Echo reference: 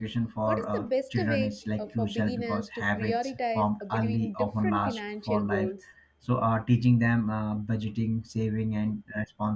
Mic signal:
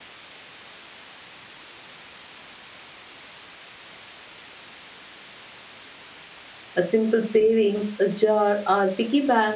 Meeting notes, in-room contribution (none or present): present